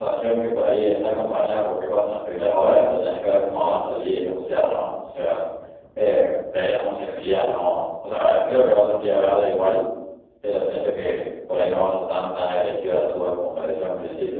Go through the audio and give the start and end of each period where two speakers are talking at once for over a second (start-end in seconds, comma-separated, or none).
none